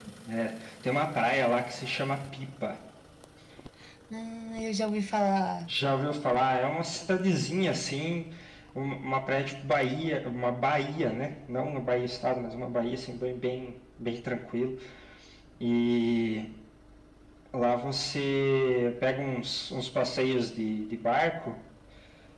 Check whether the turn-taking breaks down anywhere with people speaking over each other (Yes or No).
No